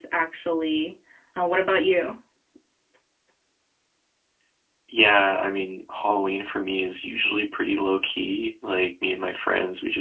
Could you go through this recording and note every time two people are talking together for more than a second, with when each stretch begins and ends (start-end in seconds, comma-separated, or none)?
none